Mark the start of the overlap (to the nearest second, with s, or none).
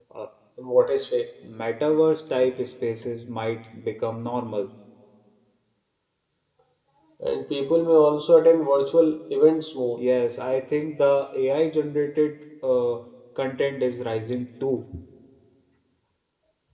none